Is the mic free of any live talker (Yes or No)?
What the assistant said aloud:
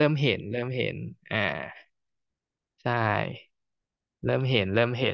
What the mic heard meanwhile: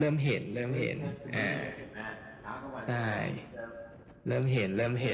No